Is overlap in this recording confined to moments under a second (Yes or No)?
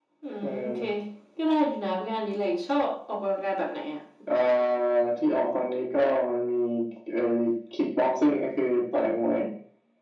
Yes